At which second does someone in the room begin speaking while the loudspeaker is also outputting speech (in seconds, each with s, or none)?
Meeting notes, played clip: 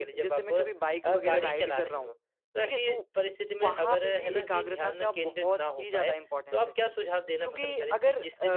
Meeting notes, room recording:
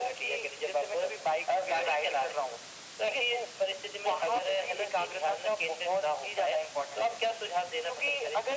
none